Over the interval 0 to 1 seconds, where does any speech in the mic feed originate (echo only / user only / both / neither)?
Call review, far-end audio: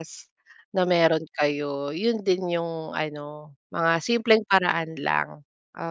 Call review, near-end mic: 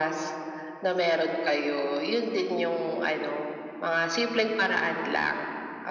echo only